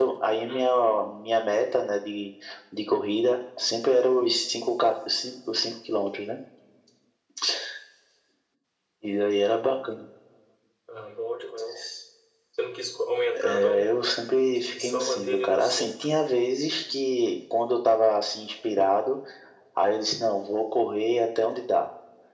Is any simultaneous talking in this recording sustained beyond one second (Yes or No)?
Yes